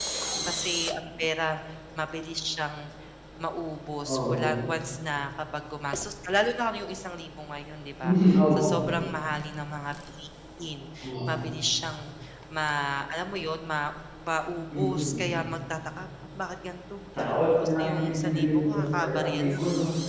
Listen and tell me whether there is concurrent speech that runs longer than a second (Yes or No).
Yes